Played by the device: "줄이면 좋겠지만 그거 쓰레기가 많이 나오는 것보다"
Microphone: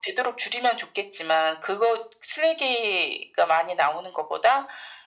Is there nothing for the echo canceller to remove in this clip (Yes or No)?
No